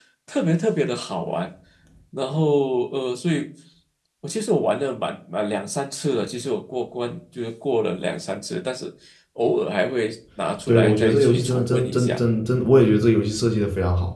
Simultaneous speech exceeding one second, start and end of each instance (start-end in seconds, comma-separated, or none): 10.7-12.2